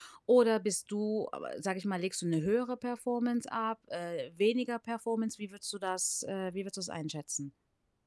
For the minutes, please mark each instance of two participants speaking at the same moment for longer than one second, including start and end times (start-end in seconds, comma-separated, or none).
none